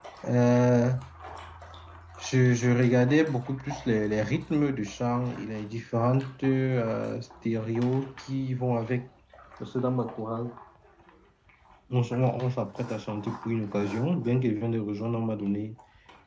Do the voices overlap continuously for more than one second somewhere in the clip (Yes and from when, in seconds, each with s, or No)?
No